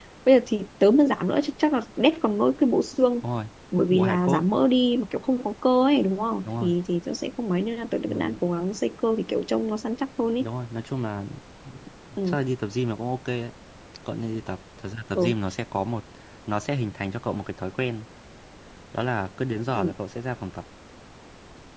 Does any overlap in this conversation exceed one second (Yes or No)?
No